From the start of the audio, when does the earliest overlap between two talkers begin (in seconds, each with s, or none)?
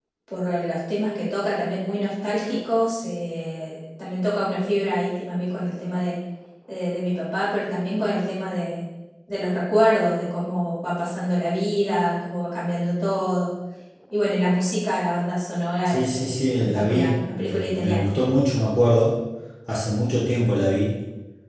15.8 s